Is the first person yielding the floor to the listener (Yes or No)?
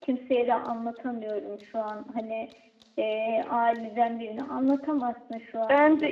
Yes